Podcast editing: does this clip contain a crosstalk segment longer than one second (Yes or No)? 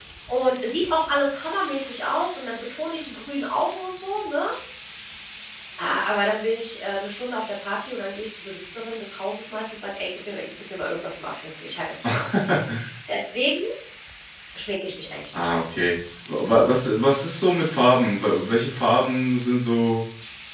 No